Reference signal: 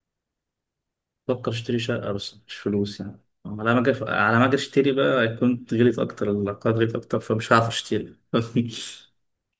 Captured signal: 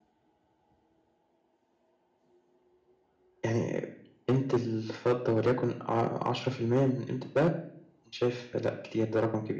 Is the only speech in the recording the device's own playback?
No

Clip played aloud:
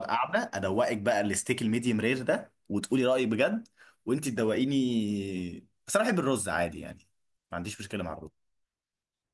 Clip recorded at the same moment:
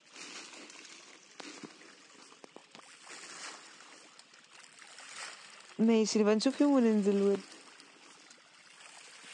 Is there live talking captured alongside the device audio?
Yes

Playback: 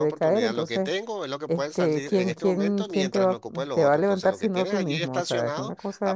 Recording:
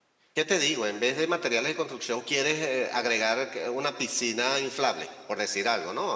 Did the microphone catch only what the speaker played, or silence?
No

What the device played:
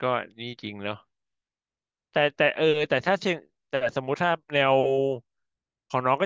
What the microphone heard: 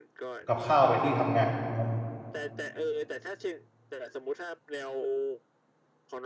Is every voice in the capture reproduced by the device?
No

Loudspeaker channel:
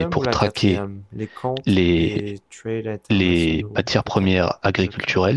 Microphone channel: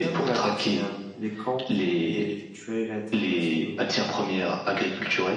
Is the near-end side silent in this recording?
Yes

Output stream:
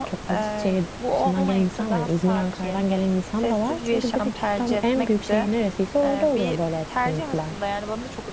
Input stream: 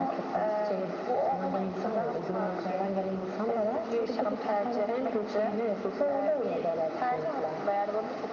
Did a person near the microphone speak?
No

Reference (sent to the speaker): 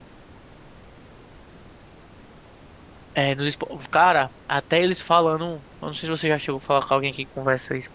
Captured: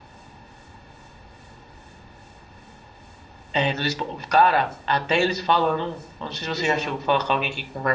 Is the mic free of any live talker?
No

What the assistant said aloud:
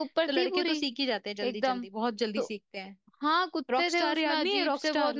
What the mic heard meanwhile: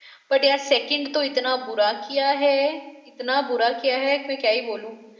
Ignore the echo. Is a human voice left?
Yes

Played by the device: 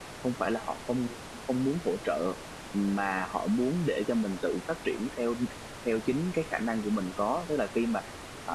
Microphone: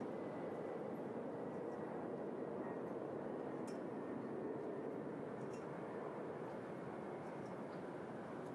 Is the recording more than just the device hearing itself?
No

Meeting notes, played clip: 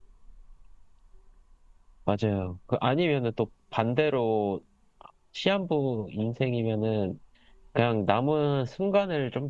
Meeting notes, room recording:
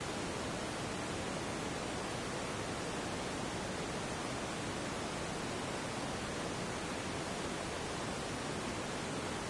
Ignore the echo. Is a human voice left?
No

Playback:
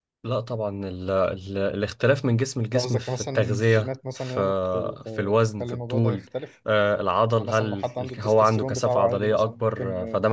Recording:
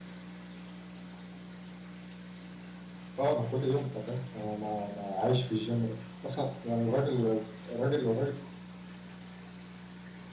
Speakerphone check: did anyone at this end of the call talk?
Yes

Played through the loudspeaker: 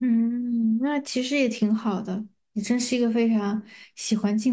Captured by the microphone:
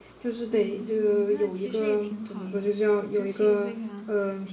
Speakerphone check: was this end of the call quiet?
No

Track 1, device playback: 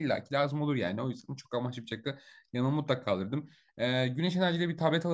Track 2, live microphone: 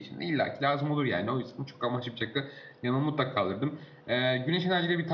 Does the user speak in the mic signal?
No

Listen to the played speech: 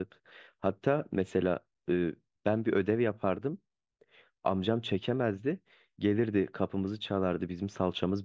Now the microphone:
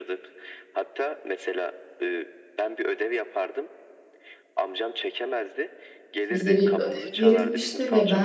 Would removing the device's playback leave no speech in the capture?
No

